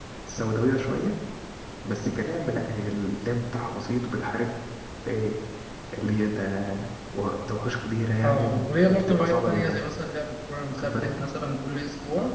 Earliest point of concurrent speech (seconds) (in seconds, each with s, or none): 8.2 s